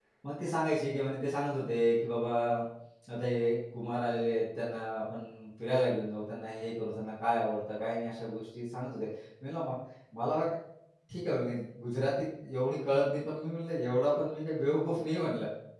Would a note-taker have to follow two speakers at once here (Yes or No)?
No